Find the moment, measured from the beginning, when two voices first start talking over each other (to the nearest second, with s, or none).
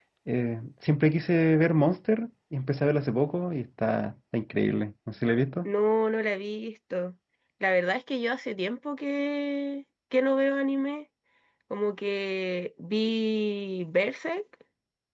none